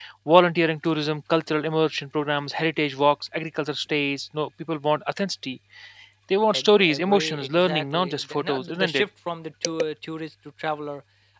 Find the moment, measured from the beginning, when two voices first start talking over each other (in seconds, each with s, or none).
6.5 s